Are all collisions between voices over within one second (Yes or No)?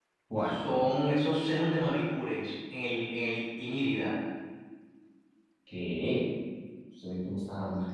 Yes